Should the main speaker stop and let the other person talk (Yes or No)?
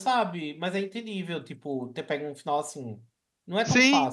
Yes